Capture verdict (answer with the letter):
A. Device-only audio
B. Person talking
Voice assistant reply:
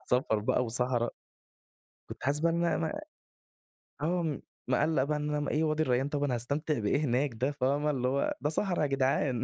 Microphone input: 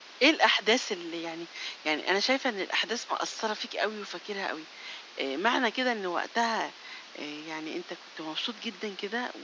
B